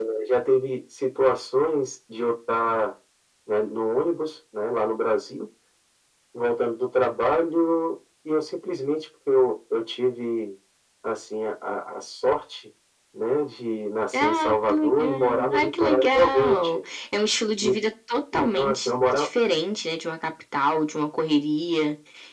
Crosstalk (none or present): present